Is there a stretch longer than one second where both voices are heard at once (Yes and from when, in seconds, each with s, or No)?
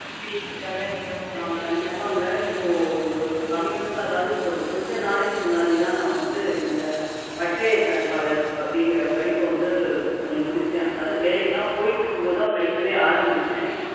Yes, from 1.3 s